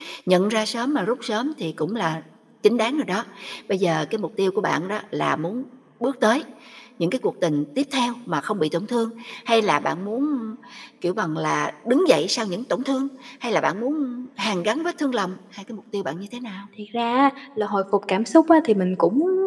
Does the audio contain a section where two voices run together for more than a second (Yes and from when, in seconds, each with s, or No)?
No